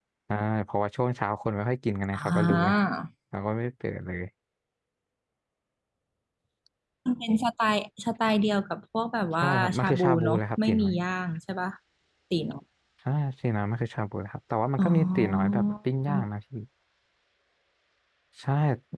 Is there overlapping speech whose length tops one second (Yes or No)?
Yes